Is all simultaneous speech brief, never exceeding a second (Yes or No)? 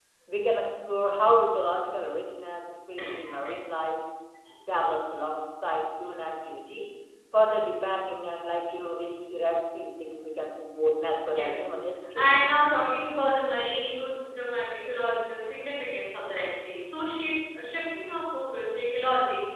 Yes